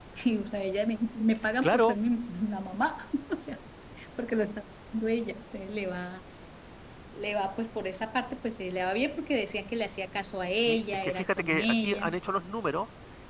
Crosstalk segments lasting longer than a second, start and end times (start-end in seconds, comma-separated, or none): 10.6-12.1